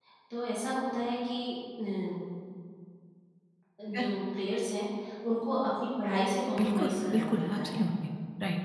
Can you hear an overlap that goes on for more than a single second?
Yes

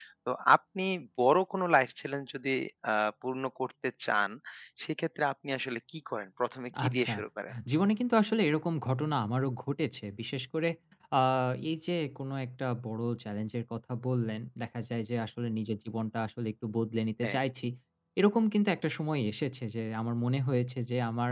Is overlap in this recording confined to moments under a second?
Yes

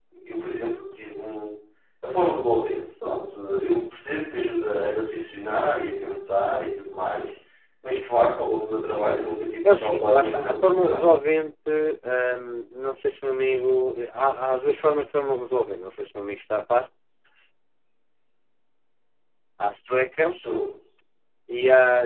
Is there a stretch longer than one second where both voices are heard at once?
Yes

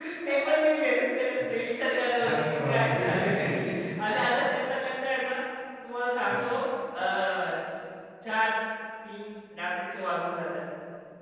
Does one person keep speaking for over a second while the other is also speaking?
Yes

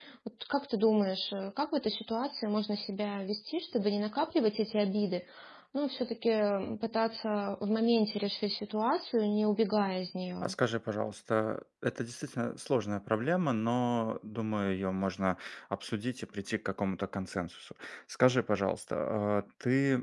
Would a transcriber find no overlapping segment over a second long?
Yes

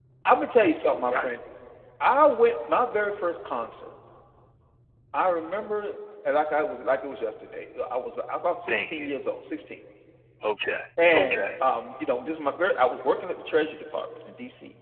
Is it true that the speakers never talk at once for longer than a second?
Yes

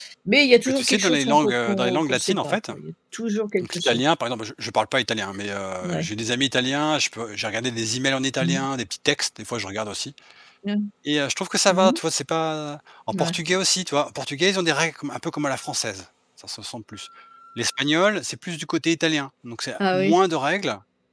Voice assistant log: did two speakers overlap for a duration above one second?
Yes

